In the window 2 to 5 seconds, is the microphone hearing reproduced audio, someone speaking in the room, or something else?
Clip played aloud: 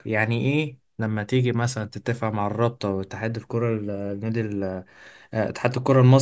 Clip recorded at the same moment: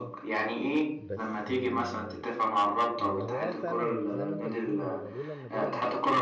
both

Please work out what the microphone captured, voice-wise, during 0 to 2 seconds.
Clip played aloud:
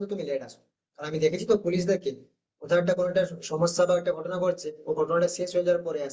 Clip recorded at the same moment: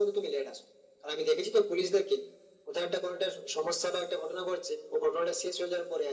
echo only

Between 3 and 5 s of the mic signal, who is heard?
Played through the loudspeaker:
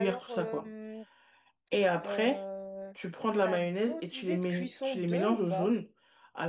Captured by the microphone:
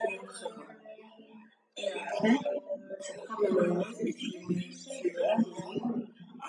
echo only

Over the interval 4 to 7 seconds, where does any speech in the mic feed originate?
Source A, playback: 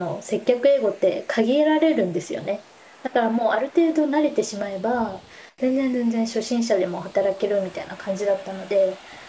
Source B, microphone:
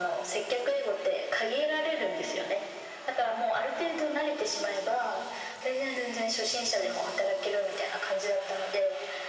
echo only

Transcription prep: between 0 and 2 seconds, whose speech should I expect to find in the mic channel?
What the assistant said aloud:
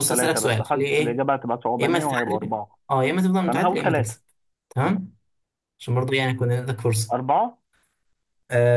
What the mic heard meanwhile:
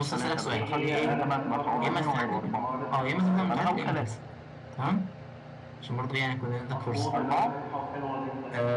both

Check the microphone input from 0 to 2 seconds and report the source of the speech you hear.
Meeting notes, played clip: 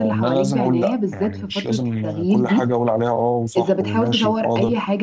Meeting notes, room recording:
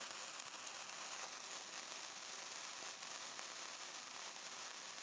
neither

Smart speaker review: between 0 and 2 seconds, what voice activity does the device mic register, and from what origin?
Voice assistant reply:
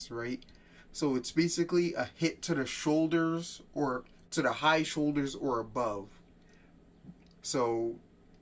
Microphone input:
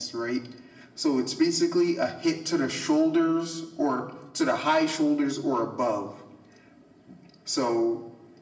echo only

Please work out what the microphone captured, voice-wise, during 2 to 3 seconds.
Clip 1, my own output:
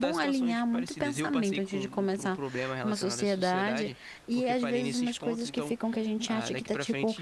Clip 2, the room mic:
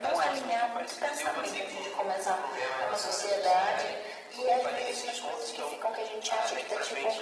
echo only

